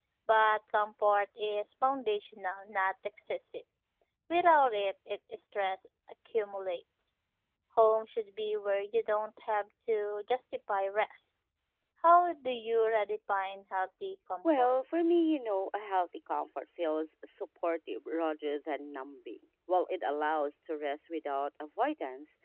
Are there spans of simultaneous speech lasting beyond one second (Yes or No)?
No